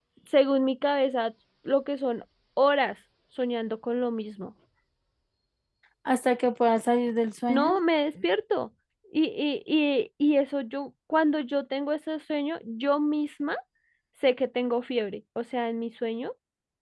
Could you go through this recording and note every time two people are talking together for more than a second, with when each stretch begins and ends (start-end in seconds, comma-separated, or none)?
none